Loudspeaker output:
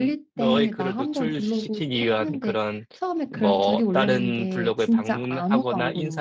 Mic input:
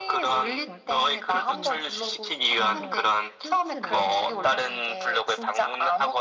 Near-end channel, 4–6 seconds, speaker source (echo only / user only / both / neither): both